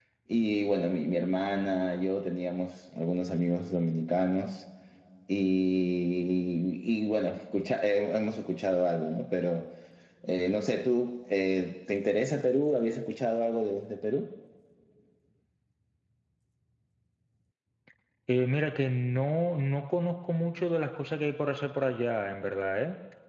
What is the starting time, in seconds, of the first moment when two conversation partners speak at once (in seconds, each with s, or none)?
none